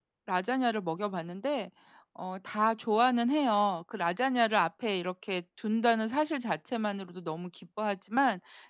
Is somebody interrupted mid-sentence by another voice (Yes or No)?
No